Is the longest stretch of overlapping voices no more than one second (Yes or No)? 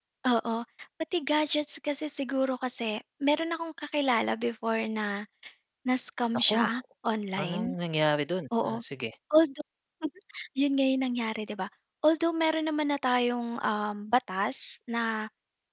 Yes